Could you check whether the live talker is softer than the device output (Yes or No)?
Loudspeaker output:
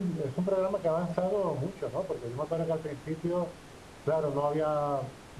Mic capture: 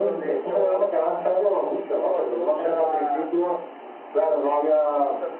Yes